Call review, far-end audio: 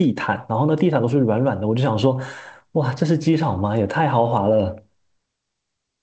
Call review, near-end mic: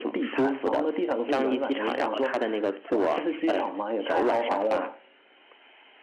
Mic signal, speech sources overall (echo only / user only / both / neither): both